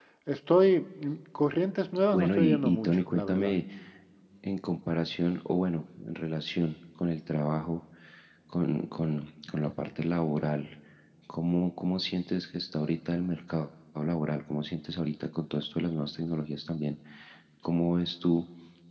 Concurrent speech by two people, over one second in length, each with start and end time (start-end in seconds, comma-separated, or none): 2.1-3.6